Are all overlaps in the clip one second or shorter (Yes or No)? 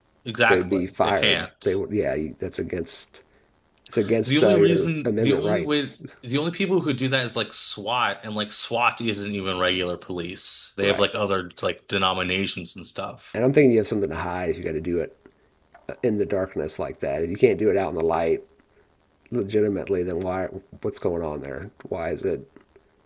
No